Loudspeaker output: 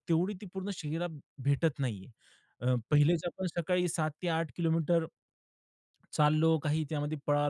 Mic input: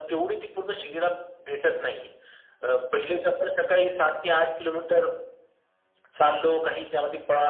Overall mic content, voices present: echo only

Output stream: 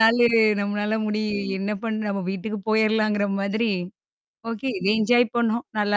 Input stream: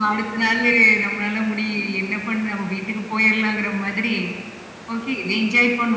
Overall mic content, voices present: echo only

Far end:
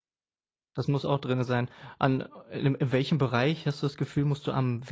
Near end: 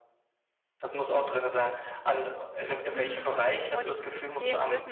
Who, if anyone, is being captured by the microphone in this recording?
both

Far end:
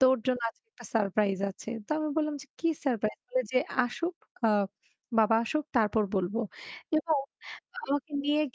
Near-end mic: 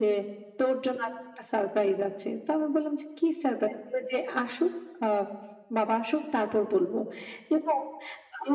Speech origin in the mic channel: echo only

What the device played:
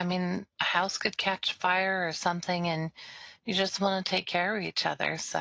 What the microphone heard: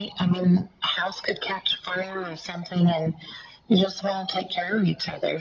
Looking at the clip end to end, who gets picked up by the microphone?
echo only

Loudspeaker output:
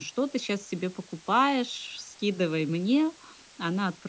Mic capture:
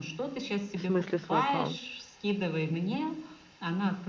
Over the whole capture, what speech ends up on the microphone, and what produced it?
both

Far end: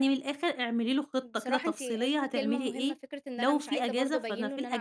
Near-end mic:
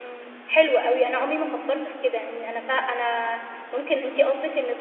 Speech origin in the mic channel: user only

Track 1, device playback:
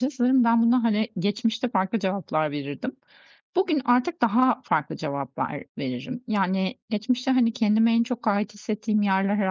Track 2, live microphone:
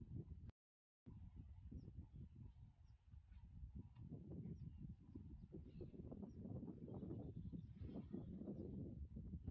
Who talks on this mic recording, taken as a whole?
neither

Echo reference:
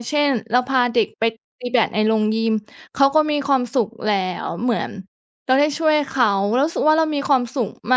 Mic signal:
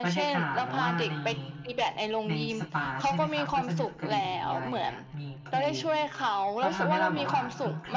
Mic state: both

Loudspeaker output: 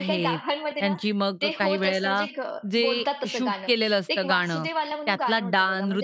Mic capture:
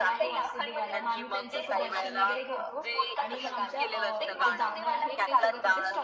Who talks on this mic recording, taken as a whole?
both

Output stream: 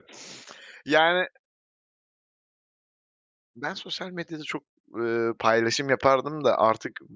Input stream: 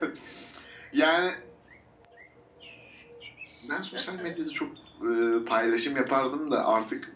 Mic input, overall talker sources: both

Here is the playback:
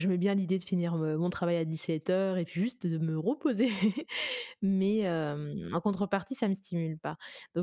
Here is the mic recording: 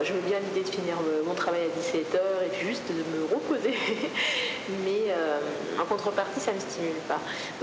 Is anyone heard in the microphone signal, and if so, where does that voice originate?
echo only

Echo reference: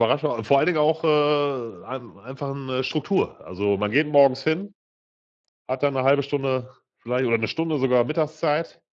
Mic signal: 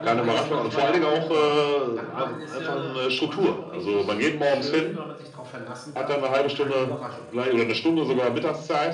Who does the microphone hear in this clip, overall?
both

